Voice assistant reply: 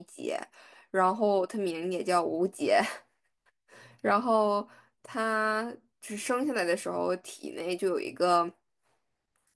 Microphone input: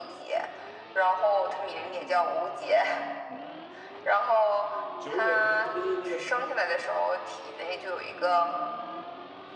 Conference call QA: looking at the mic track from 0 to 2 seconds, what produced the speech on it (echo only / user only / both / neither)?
echo only